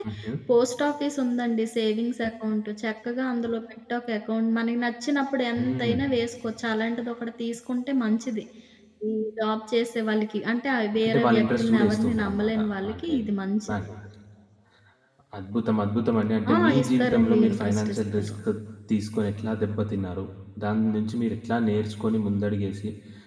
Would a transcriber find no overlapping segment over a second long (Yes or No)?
No